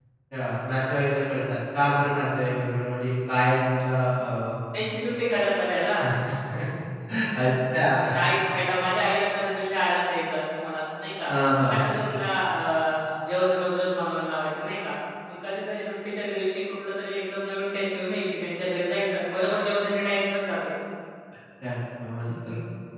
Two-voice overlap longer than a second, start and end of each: none

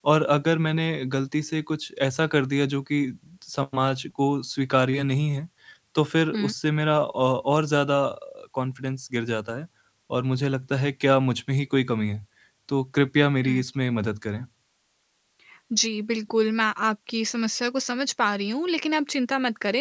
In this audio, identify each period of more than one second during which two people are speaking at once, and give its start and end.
none

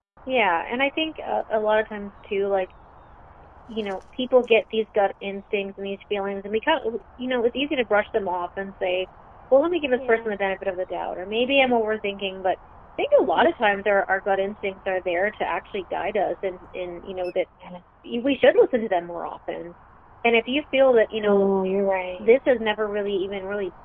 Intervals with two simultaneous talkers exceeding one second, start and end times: none

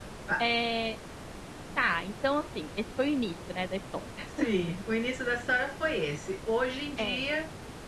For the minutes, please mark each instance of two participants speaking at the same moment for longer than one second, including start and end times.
none

